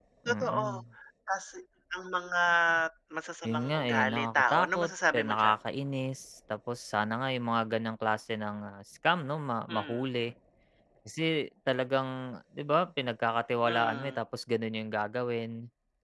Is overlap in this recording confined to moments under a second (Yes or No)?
No